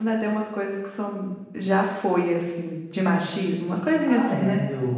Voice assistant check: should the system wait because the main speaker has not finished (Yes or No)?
No